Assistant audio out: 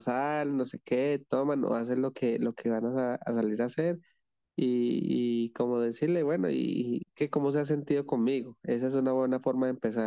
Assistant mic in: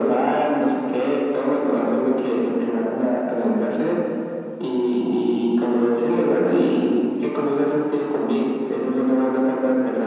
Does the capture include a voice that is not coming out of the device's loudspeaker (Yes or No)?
No